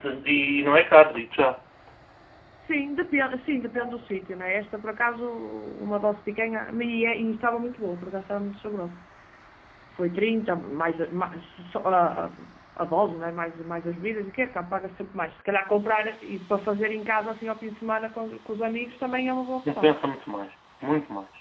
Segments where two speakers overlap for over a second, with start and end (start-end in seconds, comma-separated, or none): none